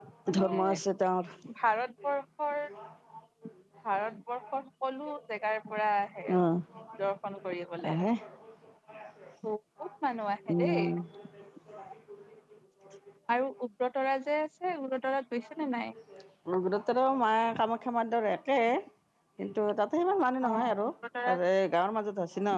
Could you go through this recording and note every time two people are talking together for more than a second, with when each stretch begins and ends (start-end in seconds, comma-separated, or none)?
none